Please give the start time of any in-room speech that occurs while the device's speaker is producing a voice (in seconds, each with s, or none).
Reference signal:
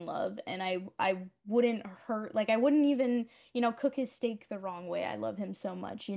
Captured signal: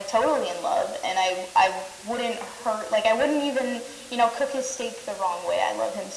none